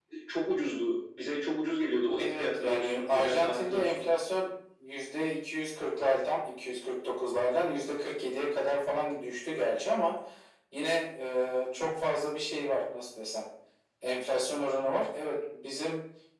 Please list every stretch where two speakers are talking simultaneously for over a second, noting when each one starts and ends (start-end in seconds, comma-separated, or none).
2.2-4.1